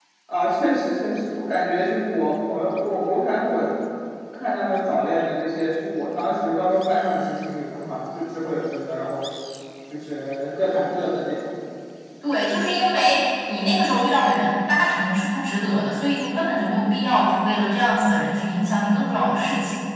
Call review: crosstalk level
none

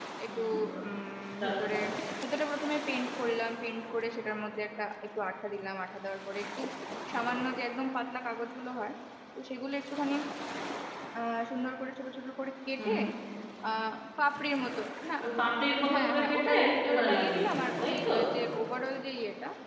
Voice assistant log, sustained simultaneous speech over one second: present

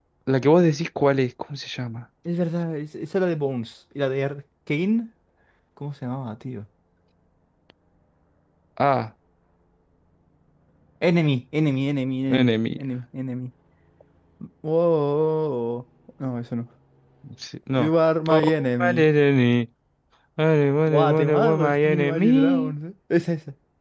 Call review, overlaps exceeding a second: present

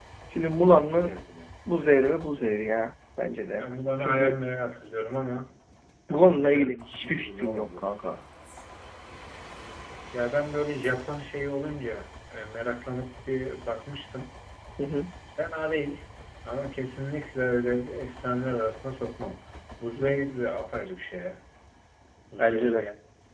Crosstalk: present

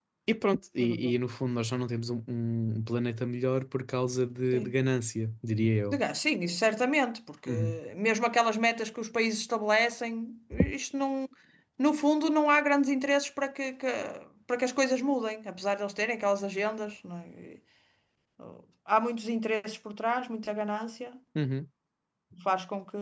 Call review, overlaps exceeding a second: none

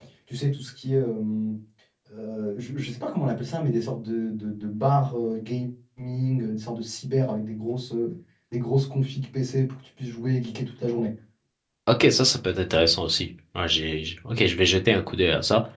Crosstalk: none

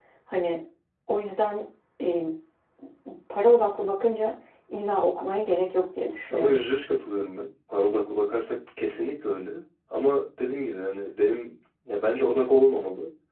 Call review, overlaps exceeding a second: none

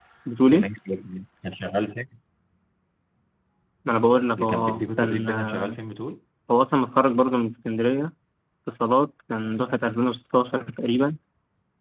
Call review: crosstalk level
present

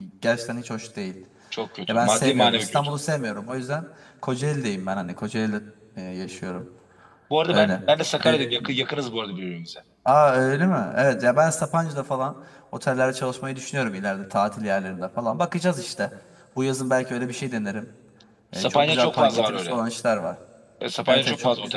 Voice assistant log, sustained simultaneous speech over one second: present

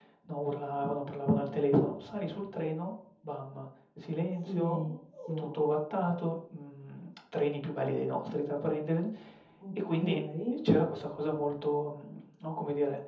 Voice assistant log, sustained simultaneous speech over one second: present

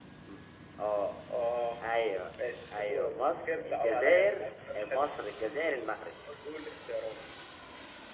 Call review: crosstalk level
present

